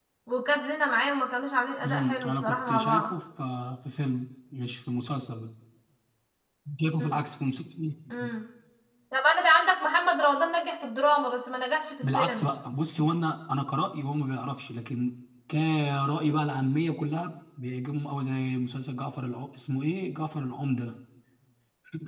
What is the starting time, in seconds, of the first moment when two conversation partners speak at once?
2 s

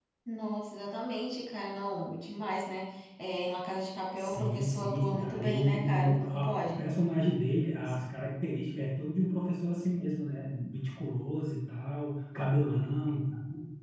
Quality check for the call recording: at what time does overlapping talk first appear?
4 s

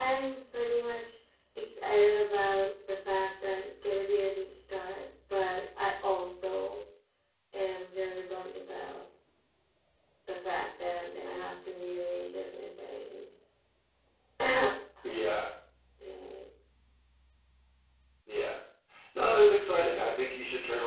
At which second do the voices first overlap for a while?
none

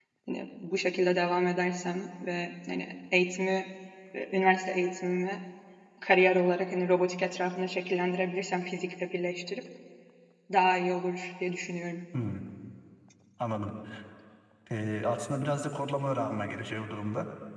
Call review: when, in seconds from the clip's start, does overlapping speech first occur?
none

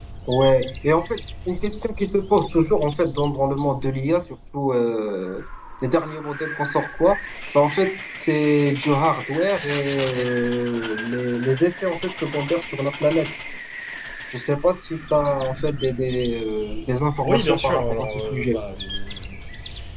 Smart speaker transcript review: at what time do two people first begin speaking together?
17 s

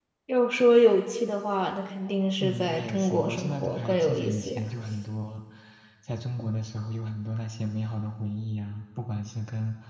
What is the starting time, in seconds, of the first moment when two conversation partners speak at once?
2 s

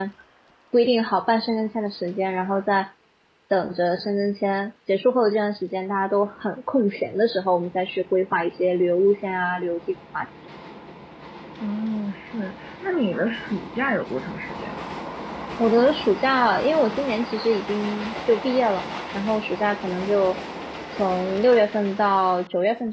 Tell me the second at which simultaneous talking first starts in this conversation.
none

